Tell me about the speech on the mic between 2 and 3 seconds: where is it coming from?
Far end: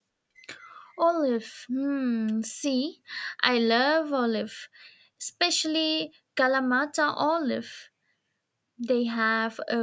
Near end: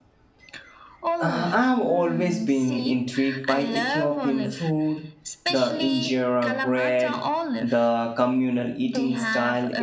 both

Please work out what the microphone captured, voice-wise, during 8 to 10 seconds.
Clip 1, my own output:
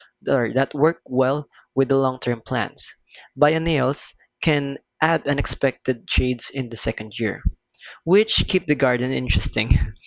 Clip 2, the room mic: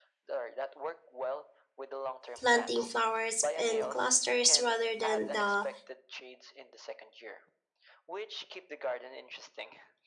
echo only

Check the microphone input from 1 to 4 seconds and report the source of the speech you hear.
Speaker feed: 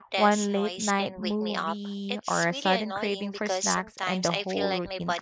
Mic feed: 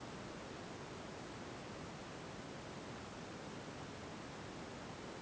neither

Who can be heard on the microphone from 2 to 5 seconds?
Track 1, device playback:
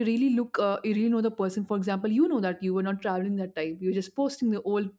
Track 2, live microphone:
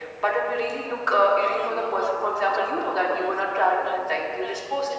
both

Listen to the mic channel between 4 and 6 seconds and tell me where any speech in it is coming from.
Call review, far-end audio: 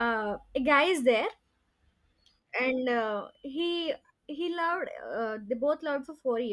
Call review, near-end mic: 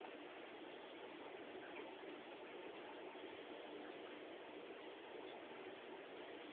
neither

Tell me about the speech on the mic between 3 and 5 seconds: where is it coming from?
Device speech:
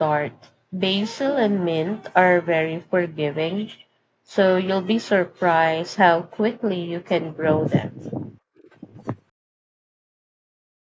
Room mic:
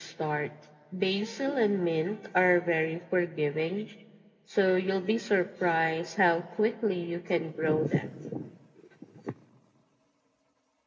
echo only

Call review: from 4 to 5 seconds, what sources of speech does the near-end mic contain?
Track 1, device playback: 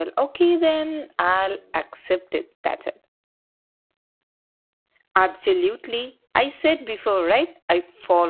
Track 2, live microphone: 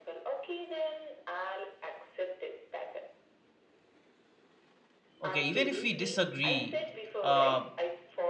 neither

